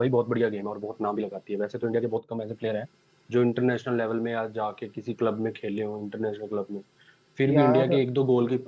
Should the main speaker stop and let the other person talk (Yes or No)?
No